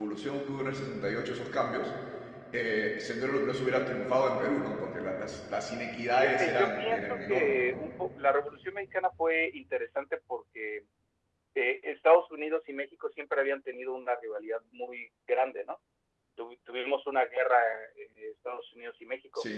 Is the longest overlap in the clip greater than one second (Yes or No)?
Yes